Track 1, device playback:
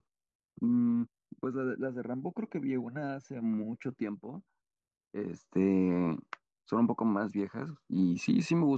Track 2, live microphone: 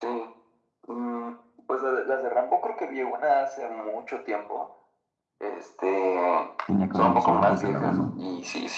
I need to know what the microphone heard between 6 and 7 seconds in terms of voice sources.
both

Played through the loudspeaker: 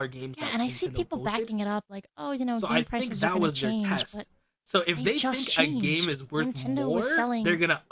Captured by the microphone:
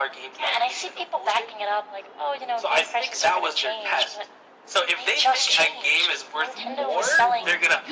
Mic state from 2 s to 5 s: echo only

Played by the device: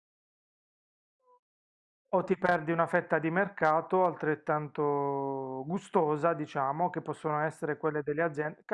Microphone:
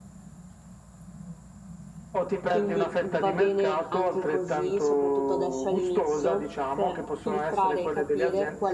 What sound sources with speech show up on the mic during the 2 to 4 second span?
both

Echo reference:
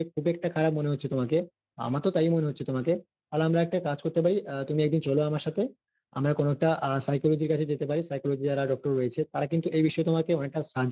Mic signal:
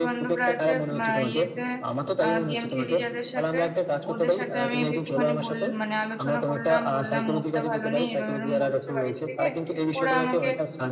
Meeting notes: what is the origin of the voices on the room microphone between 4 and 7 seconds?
both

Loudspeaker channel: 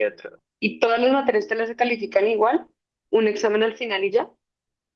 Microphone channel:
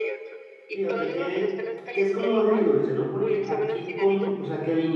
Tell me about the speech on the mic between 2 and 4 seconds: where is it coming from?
both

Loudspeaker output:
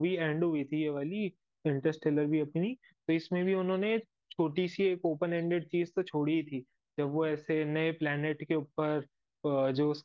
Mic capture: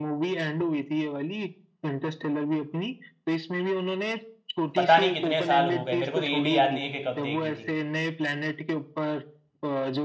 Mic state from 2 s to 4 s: echo only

